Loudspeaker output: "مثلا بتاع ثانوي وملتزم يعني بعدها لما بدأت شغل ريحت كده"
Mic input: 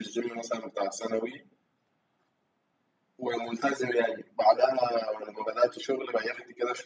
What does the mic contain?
echo only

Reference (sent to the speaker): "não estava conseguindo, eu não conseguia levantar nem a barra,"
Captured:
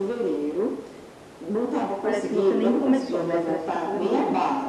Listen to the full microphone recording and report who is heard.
both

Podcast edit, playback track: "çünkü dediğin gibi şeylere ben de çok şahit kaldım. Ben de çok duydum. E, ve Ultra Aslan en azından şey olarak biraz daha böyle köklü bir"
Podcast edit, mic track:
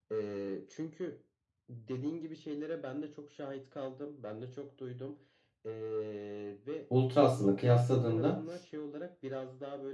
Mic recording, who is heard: both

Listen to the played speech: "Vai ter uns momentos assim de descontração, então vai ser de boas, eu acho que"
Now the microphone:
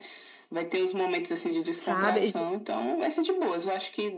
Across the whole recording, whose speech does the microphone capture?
both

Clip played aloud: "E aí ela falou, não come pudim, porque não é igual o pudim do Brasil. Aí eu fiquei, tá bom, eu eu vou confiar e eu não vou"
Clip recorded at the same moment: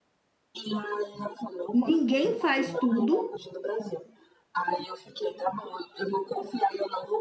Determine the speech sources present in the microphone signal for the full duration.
both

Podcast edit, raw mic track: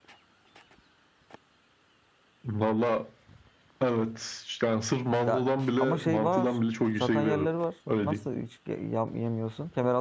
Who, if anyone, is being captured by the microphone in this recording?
both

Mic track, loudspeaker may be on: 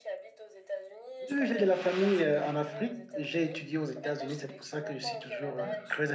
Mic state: both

